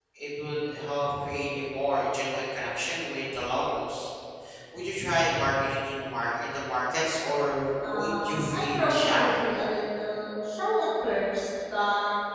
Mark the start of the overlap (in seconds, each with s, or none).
7.8 s